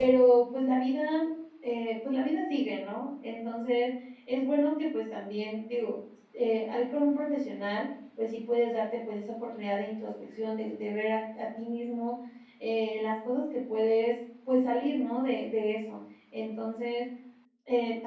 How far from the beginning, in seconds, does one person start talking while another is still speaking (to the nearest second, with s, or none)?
none